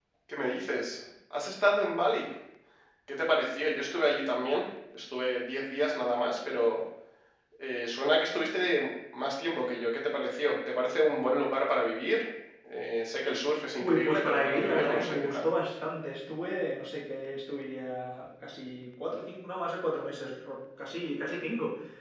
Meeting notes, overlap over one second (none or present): present